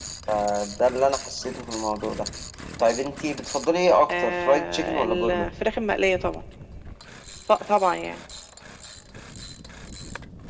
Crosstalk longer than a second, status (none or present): present